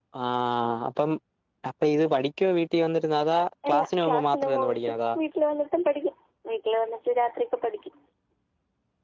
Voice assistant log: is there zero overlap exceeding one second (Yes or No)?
No